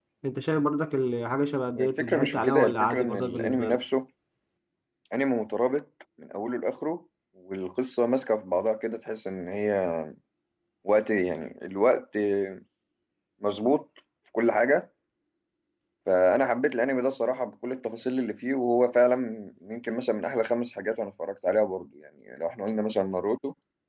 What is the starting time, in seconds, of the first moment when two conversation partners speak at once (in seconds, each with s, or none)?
1.8 s